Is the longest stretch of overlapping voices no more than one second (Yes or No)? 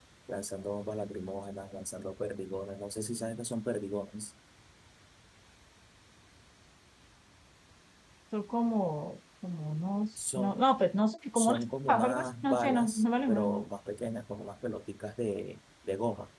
No